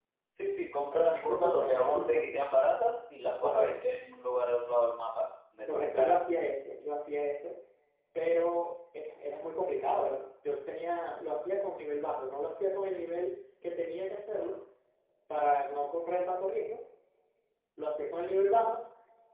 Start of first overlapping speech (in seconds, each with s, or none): 0.9 s